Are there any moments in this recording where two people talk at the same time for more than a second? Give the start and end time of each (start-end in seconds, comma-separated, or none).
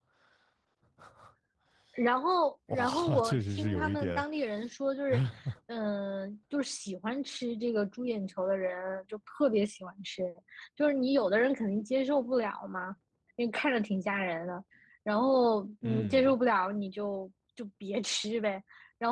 2.7-4.2